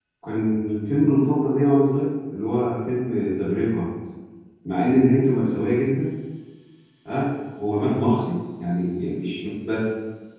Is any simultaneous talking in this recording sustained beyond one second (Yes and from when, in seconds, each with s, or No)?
No